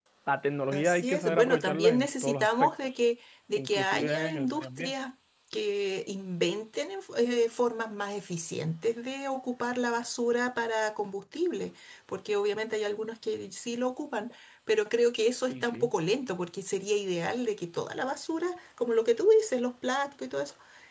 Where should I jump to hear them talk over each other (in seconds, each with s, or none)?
0.7 s